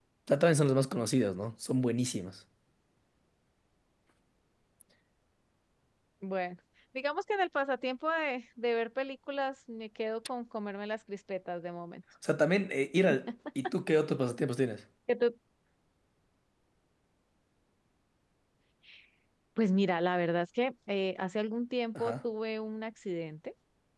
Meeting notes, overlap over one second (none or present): none